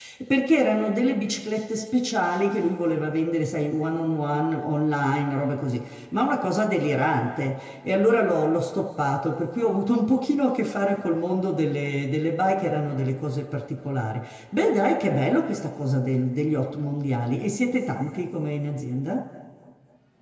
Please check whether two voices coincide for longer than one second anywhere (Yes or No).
No